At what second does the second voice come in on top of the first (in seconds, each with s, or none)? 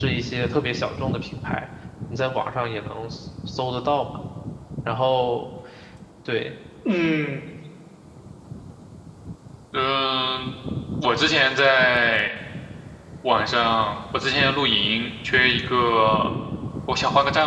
none